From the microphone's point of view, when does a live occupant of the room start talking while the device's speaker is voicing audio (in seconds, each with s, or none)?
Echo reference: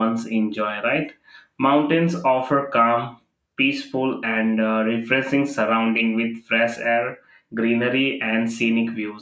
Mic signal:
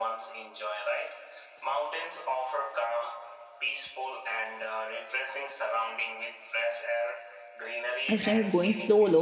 8.1 s